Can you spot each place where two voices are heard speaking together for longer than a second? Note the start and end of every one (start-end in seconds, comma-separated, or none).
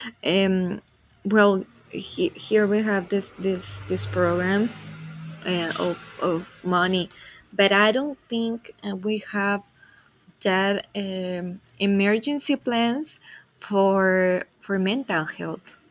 none